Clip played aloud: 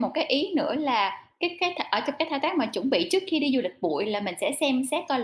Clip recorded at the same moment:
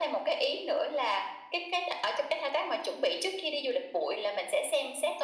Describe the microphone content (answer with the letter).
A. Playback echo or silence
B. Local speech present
A